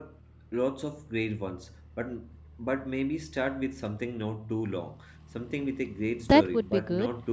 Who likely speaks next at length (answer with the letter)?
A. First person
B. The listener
B